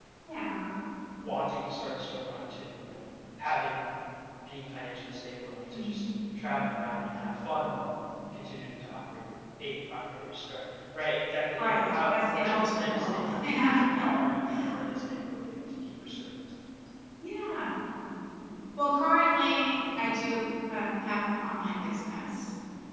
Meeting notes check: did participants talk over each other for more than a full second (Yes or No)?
Yes